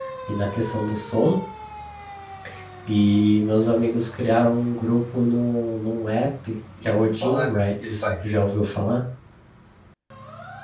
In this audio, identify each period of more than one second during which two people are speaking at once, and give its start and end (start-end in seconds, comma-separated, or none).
6.8-8.3